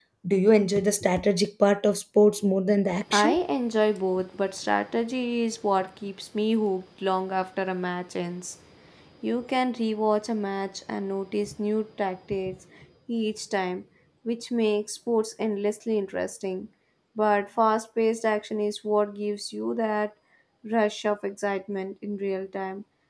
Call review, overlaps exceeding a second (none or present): none